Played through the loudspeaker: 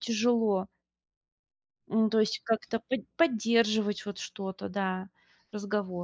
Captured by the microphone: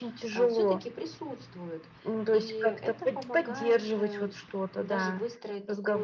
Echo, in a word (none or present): present